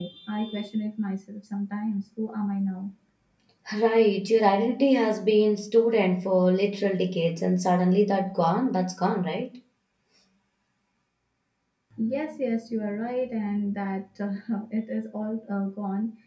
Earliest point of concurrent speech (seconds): none

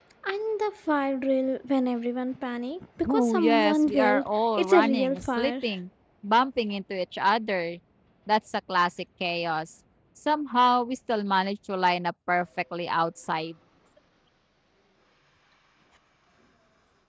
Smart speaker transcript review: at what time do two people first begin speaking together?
3.0 s

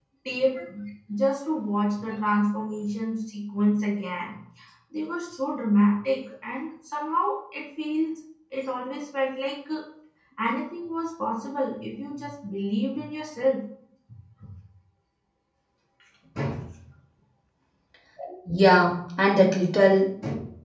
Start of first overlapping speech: none

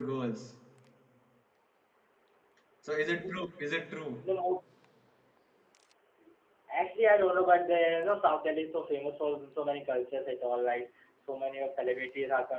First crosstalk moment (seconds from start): none

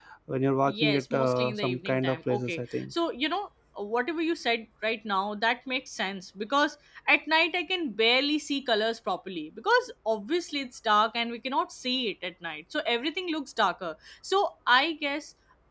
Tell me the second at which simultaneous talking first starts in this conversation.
0.7 s

